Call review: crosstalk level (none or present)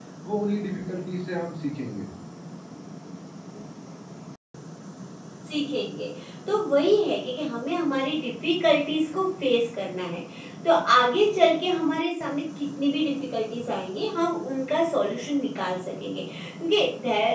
none